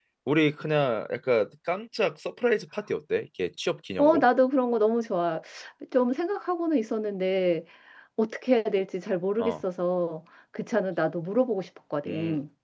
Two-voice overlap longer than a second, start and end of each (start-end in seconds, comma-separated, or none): none